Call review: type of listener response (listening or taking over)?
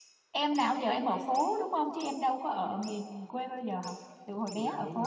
taking over